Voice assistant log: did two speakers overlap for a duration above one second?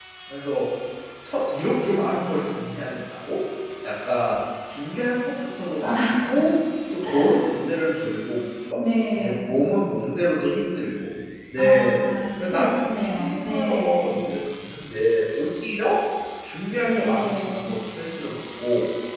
Yes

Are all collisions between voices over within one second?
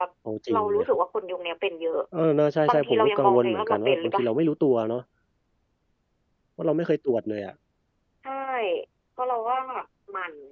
No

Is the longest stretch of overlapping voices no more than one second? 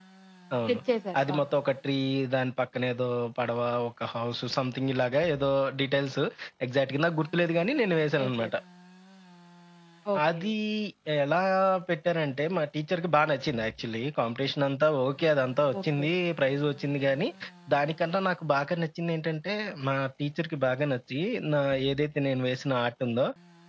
Yes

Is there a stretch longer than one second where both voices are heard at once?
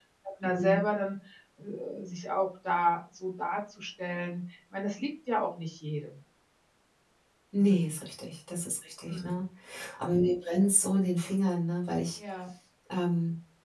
No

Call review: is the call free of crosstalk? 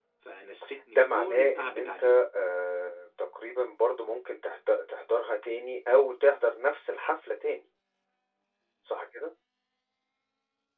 No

